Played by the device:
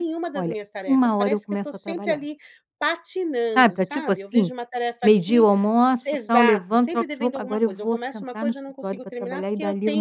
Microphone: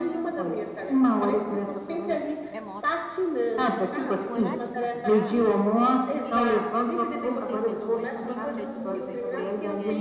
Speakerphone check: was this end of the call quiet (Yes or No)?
No